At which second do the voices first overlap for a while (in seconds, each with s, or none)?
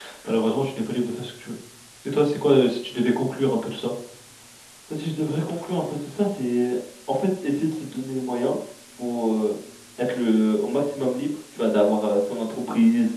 none